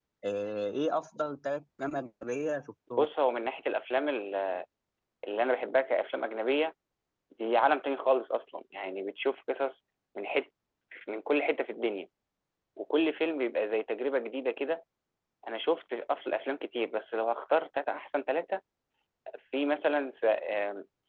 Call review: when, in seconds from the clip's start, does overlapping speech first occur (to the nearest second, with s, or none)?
none